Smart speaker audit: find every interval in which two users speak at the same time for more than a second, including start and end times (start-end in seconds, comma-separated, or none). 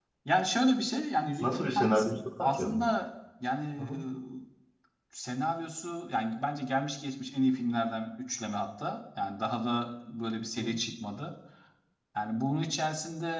1.4-2.8